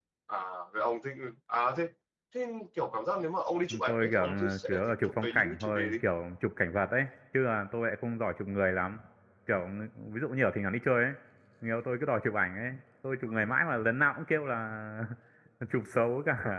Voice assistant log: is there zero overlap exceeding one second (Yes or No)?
No